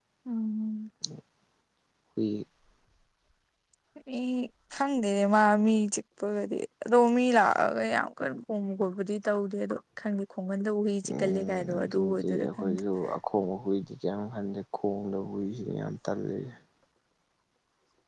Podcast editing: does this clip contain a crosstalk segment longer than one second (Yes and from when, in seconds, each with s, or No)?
Yes, from 11.0 s